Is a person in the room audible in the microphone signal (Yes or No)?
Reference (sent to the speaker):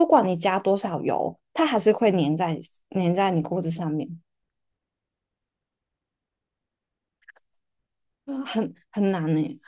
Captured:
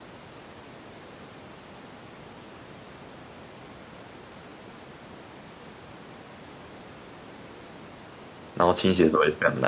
Yes